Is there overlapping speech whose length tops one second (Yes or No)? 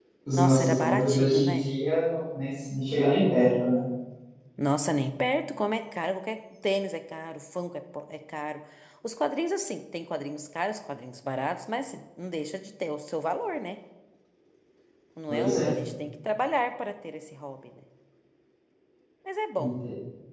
Yes